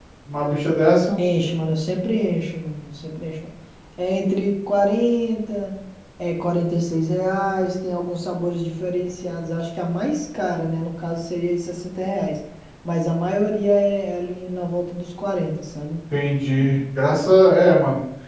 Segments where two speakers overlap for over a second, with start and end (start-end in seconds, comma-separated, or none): none